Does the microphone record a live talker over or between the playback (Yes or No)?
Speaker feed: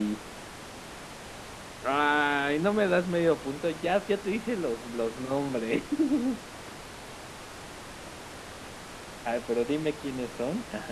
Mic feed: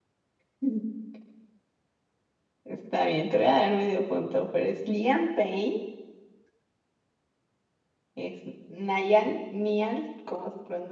Yes